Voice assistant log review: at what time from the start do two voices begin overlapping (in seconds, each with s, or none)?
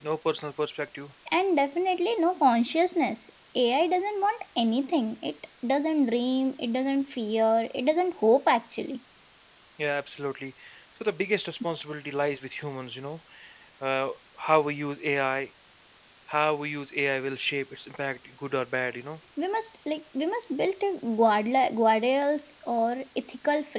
none